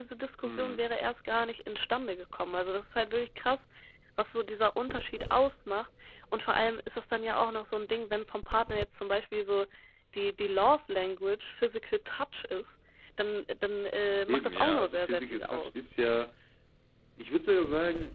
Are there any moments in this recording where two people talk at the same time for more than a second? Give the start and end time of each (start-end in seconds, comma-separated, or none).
14.3-15.9